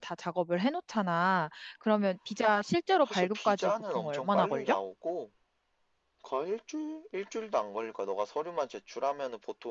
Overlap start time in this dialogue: 3 s

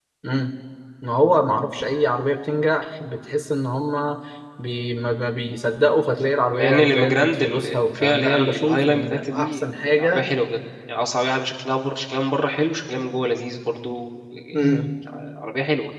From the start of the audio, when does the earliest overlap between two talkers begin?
7 s

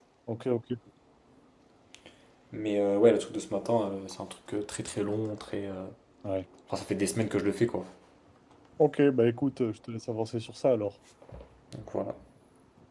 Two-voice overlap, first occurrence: none

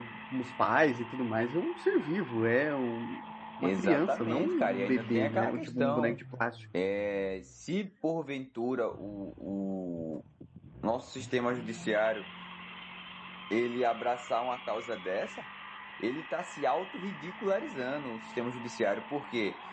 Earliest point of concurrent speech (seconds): 4 s

